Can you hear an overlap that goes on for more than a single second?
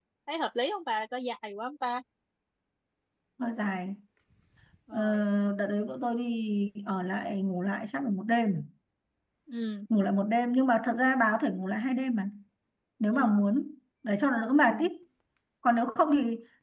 No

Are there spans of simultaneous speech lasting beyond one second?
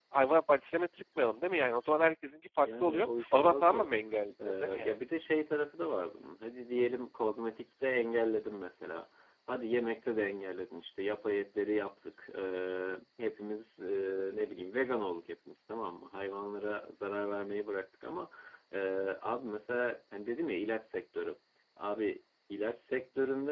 Yes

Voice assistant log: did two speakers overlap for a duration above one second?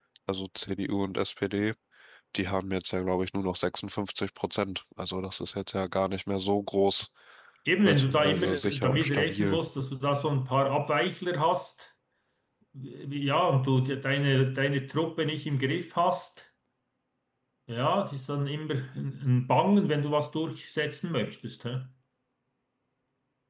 Yes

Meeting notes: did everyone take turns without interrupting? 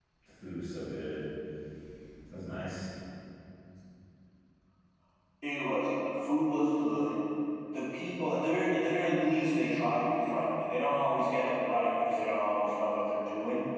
Yes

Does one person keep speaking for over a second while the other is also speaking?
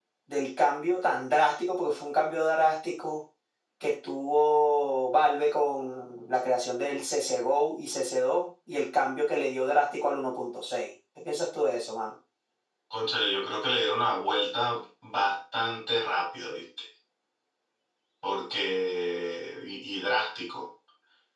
No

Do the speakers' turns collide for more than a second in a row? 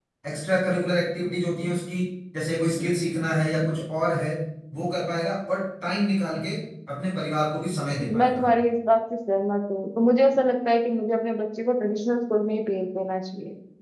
No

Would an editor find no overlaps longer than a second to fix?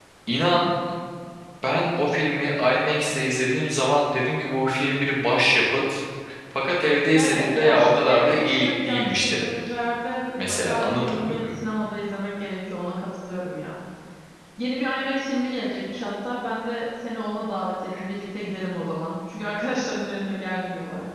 No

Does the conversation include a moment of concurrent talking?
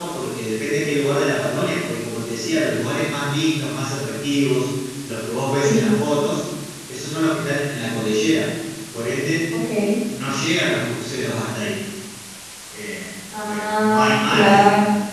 Yes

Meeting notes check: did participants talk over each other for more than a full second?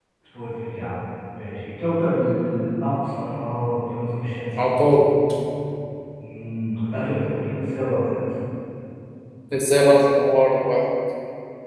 No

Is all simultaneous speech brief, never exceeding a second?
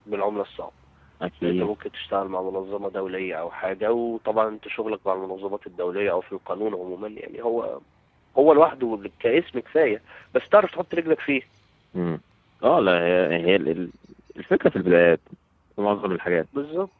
Yes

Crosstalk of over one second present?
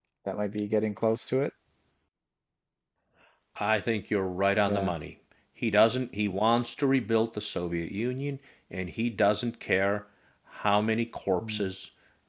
No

